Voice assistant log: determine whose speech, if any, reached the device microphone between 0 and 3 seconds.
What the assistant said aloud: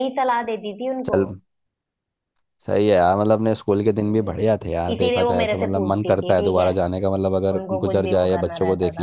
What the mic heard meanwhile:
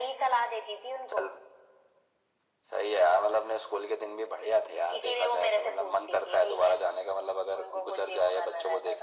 echo only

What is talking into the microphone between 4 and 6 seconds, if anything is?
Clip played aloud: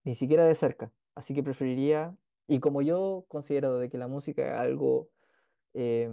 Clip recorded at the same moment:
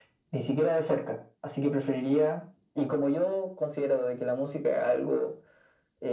echo only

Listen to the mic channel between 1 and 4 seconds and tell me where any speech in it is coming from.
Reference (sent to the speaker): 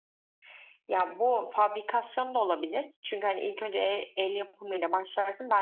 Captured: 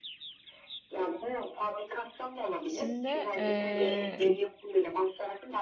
both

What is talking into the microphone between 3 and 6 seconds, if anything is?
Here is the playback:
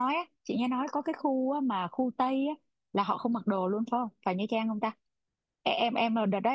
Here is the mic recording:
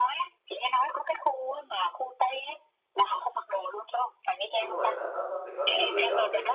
both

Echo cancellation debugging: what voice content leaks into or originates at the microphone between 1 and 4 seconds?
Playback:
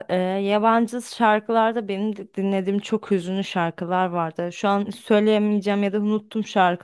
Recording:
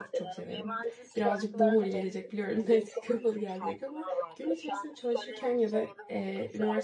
both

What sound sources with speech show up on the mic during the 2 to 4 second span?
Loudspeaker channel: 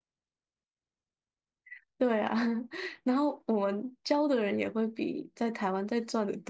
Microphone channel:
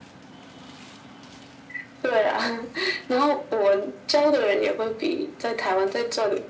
echo only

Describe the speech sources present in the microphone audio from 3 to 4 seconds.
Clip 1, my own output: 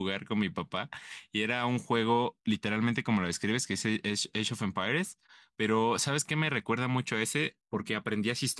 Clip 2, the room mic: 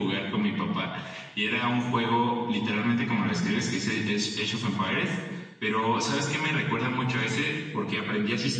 echo only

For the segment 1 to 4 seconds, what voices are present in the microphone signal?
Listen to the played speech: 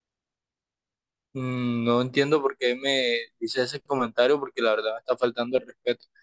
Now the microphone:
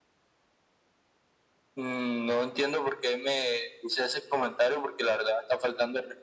echo only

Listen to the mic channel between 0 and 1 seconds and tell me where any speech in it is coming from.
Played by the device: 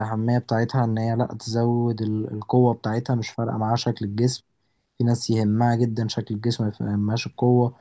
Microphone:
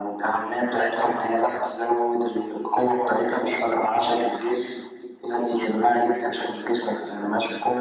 echo only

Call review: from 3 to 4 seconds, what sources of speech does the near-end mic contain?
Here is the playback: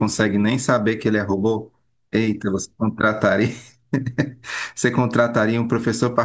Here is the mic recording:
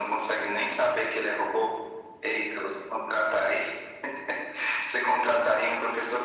echo only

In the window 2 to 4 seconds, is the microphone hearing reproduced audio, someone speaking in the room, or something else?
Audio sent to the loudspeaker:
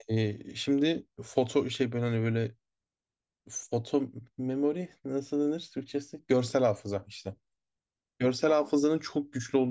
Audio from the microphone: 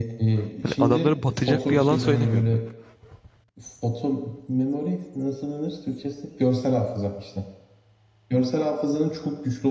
both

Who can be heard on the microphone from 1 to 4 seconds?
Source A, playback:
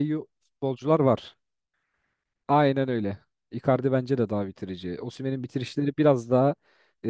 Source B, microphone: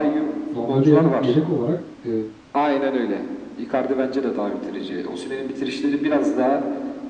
both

